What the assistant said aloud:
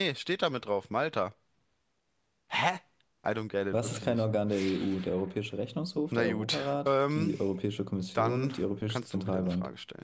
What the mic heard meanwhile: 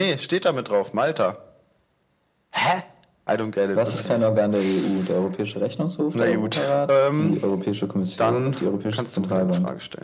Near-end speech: none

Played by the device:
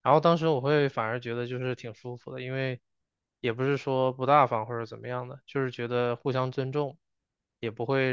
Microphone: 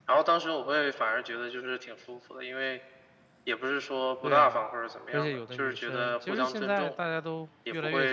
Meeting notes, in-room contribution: present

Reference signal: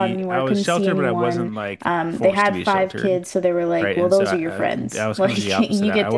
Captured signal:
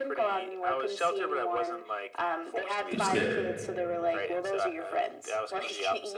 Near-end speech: present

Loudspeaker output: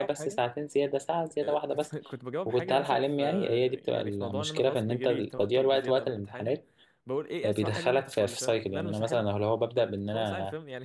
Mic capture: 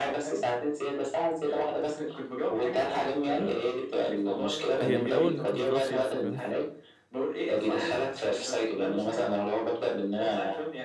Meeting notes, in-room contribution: present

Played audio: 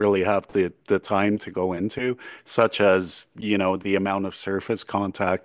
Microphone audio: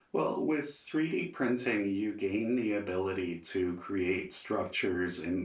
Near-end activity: present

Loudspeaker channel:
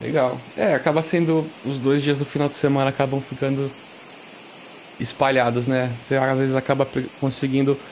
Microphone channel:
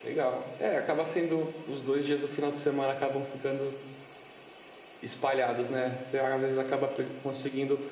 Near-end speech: none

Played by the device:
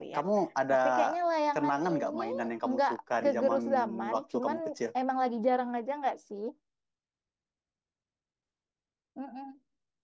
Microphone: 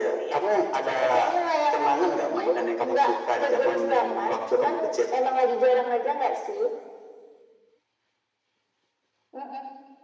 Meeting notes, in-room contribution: none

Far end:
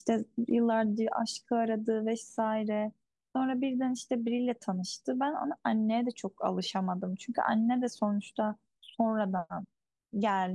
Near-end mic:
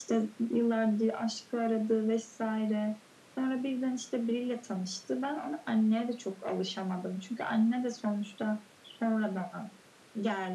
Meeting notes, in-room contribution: none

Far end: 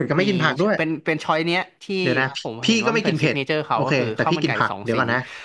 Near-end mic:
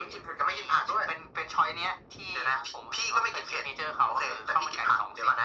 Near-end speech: none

